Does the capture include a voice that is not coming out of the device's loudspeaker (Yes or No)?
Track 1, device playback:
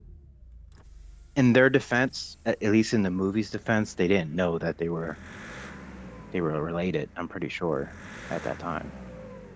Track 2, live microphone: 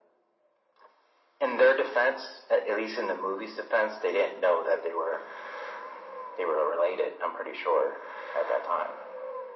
No